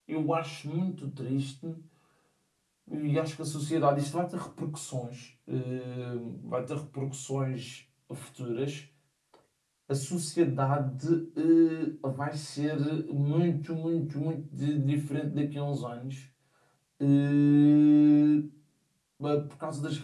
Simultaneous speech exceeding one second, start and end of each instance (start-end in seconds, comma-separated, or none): none